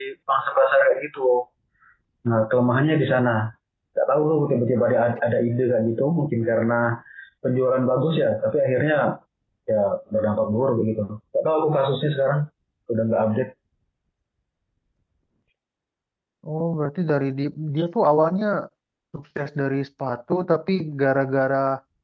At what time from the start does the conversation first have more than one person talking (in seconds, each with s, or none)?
none